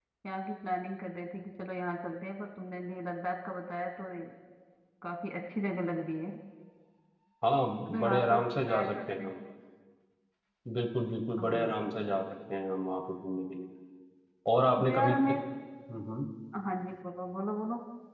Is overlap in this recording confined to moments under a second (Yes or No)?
No